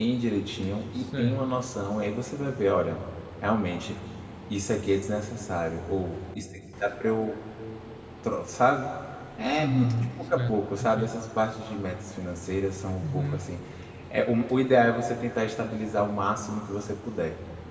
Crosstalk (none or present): present